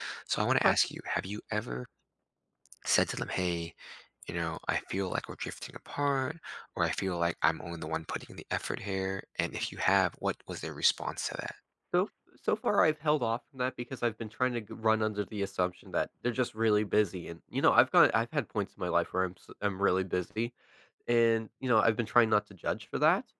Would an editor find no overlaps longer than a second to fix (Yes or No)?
Yes